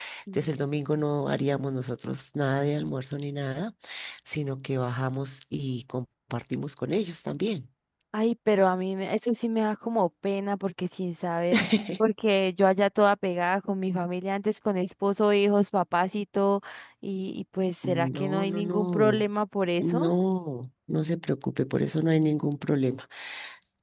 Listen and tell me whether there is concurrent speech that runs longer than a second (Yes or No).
Yes